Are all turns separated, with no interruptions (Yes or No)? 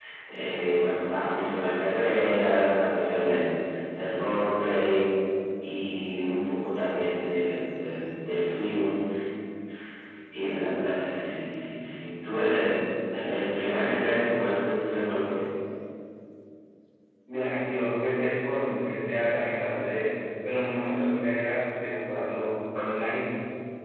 Yes